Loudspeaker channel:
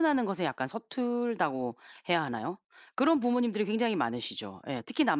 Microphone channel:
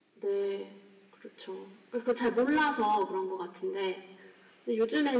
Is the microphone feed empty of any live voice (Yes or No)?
No